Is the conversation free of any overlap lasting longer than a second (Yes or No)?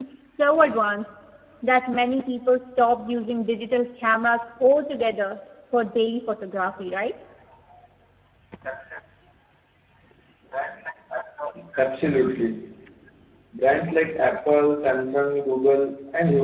Yes